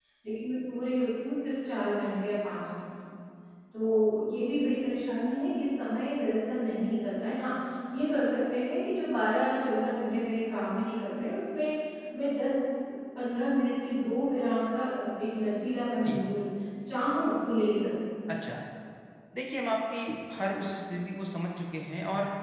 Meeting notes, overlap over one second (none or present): none